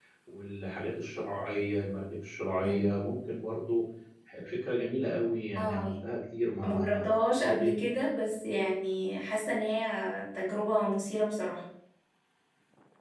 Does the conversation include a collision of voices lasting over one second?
No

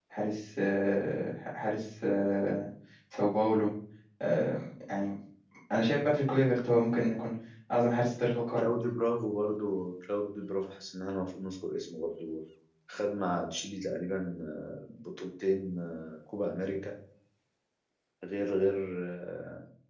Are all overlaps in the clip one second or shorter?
Yes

